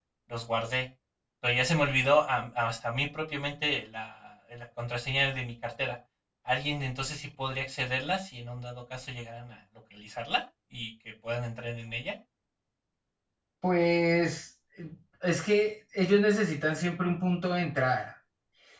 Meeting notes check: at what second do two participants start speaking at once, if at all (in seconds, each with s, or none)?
none